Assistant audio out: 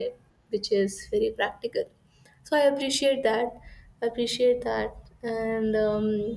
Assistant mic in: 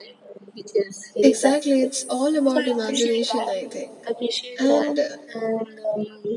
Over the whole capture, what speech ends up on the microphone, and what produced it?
both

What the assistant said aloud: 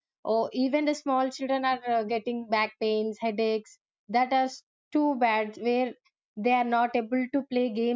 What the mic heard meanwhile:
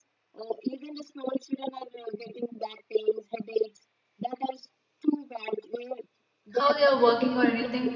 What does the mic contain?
both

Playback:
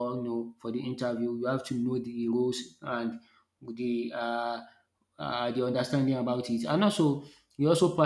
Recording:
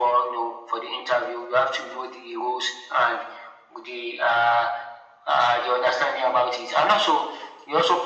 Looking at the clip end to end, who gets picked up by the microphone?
echo only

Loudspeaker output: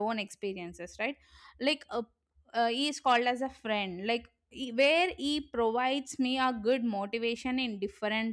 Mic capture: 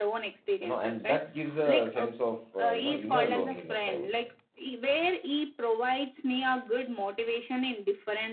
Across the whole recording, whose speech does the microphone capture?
both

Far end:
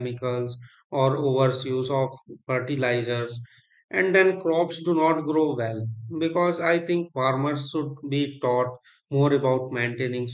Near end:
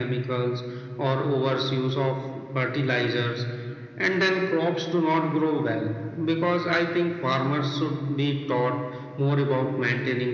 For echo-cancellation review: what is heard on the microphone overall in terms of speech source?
echo only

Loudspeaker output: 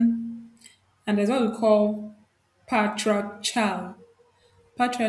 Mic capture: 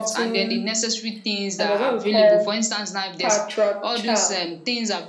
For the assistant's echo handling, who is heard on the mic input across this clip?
both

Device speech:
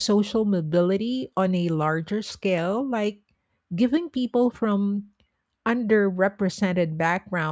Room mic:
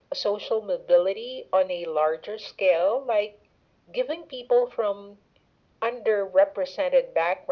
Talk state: echo only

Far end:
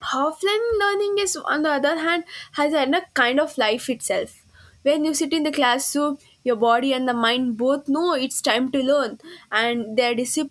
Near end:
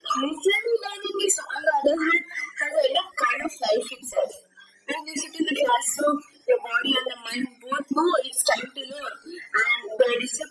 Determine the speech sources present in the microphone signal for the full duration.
echo only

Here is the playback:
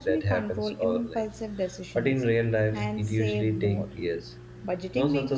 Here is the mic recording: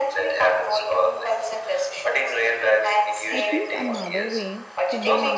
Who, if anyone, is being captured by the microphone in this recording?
both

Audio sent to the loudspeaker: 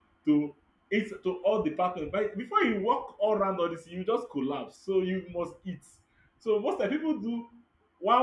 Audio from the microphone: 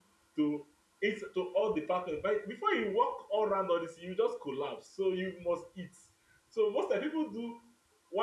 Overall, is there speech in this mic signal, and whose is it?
echo only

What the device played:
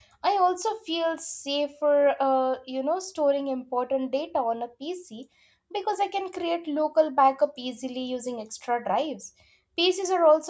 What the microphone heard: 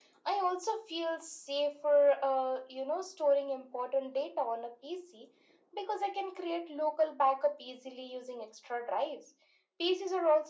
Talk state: echo only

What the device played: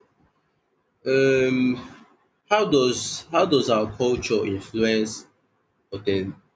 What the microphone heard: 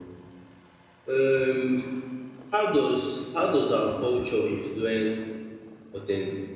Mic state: echo only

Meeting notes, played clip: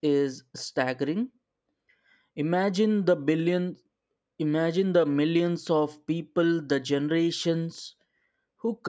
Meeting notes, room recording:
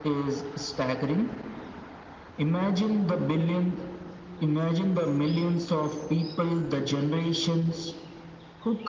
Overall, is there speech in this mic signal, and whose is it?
echo only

